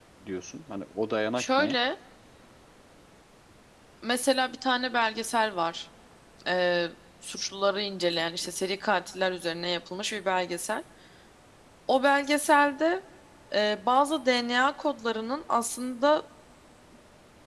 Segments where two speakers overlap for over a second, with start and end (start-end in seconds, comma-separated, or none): none